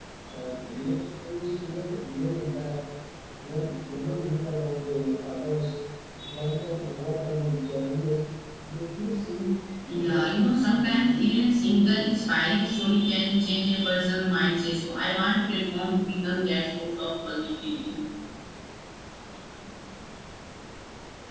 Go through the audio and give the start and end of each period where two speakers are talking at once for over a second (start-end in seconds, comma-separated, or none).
9.9-11.4